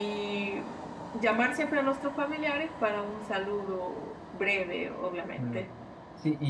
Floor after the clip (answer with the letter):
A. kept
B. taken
B